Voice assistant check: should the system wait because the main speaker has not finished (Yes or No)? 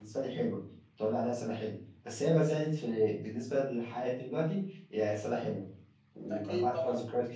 Yes